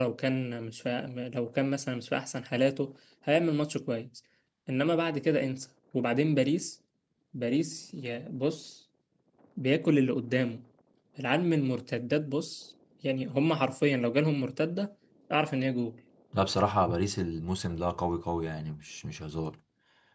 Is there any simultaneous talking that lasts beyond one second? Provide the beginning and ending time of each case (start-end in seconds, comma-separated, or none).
none